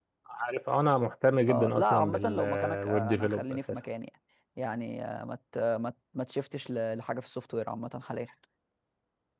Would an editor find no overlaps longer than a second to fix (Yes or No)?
No